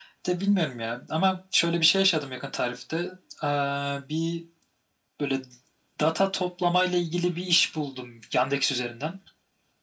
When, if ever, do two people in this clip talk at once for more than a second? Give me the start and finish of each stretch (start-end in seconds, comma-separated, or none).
none